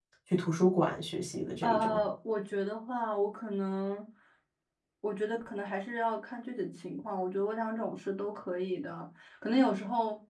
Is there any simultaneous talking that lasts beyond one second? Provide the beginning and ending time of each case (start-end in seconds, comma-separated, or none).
none